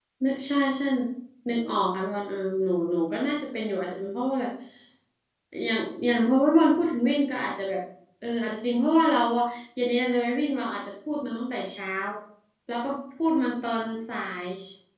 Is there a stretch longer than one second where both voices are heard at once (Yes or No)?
No